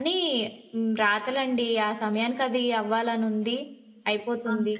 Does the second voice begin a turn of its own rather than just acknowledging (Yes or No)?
No